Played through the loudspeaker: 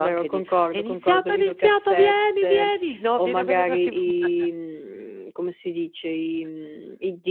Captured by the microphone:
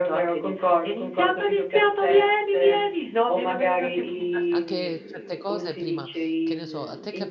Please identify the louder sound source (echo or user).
echo